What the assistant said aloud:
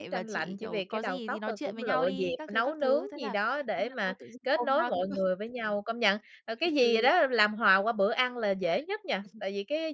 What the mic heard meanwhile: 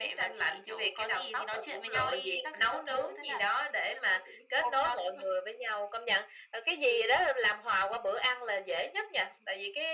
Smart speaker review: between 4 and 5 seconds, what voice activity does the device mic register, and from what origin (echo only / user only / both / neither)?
echo only